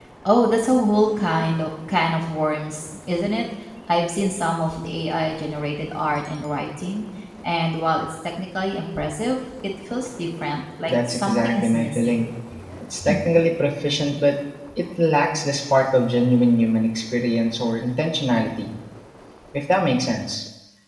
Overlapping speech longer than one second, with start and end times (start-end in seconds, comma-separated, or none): 10.9-12.2